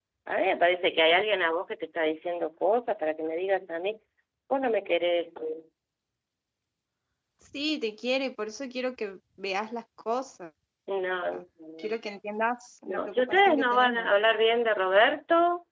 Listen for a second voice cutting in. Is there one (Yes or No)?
Yes